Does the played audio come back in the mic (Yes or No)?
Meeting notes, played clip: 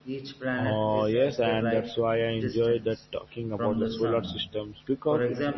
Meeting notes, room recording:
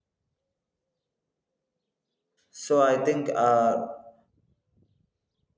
No